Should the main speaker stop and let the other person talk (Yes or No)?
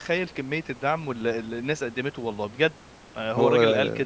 No